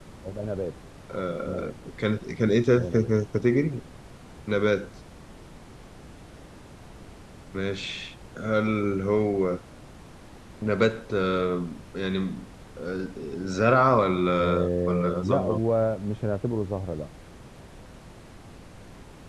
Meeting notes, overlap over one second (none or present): present